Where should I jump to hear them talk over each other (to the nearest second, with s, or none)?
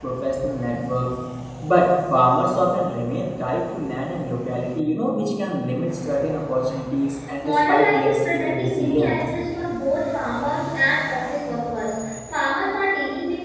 7 s